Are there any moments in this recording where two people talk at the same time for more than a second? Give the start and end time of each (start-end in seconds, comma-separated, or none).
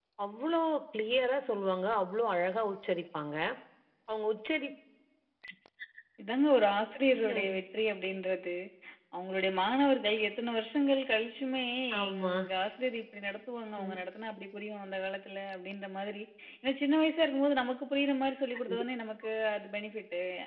none